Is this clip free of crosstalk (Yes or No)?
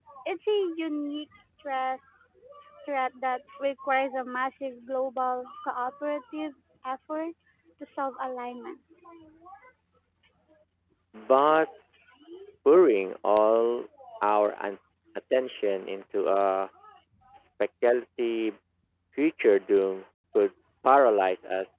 Yes